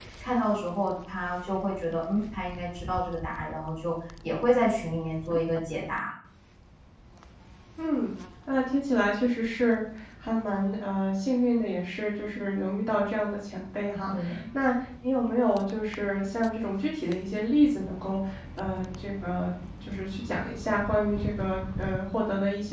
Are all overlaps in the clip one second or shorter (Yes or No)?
Yes